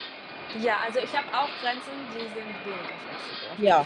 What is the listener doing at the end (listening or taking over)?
taking over